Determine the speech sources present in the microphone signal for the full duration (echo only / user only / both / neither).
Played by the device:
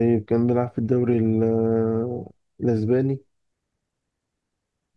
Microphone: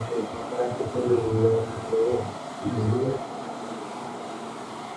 echo only